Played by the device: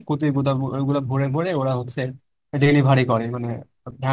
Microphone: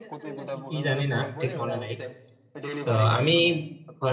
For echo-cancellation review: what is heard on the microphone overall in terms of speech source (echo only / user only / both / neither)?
both